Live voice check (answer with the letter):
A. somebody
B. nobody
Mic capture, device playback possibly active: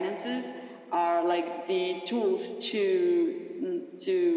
B